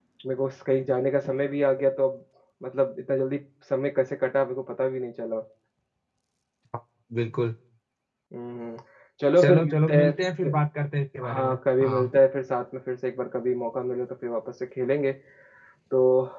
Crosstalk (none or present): present